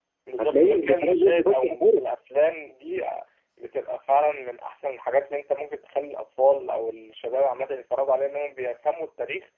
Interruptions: present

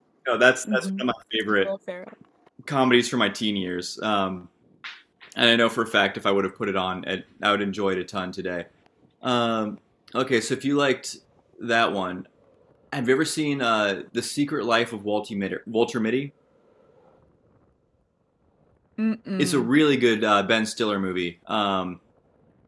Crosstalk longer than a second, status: none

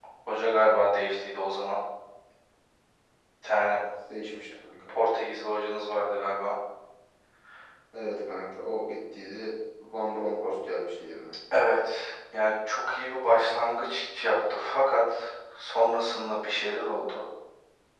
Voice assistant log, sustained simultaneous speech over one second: none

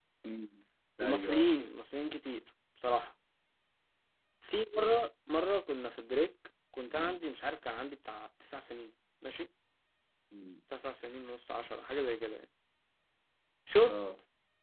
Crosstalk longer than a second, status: none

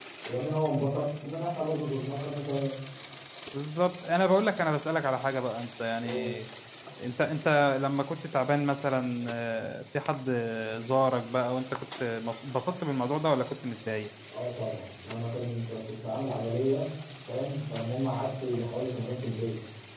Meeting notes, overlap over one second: none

